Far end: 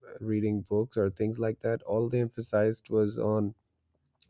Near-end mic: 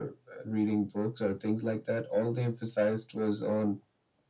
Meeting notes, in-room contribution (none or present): none